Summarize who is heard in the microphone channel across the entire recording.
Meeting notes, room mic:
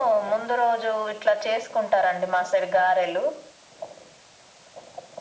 echo only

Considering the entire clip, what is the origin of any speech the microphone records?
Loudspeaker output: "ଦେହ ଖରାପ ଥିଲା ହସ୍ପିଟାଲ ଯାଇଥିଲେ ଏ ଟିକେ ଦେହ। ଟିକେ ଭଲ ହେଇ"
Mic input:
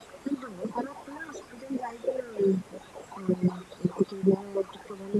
echo only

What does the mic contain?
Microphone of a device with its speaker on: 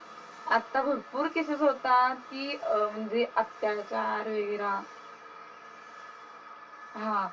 echo only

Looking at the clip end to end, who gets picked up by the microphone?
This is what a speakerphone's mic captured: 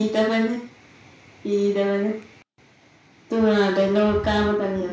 echo only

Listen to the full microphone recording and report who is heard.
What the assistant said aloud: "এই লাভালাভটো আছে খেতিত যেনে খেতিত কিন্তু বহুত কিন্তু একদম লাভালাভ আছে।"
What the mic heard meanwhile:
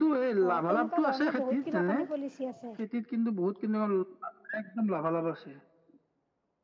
both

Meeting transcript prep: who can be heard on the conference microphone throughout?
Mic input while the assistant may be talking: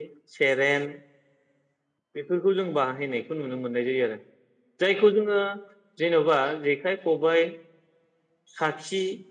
user only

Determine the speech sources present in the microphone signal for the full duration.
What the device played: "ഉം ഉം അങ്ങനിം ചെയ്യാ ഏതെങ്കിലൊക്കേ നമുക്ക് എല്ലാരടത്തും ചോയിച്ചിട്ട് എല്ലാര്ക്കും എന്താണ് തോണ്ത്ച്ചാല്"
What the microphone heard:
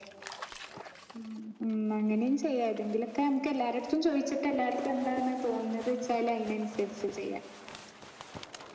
echo only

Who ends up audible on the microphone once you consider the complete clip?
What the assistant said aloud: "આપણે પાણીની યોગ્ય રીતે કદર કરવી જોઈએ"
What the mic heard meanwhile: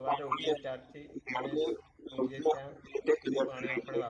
both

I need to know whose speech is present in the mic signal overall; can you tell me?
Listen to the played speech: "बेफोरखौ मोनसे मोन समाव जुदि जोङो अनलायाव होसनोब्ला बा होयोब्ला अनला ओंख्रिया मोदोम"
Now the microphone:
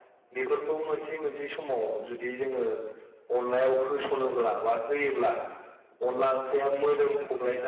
echo only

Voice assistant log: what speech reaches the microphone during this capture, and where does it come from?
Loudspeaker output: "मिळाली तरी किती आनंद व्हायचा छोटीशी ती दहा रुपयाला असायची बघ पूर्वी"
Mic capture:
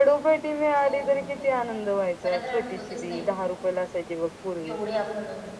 both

